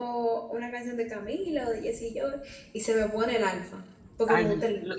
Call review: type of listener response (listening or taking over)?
taking over